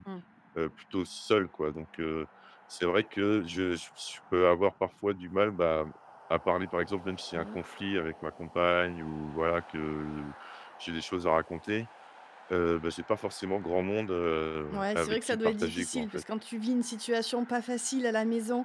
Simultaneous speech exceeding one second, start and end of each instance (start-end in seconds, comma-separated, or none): 14.7-16.2